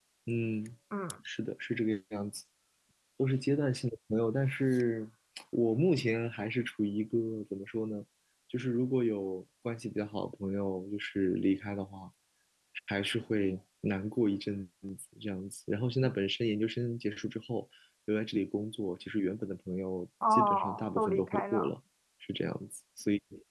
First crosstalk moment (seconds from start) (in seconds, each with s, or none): 20.2 s